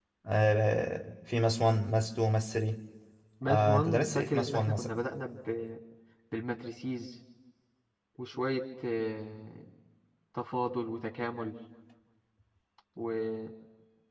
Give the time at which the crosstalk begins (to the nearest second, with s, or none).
3 s